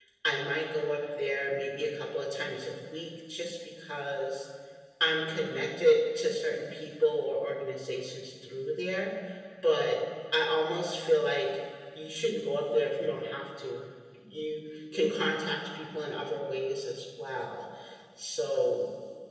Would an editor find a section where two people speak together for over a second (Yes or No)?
No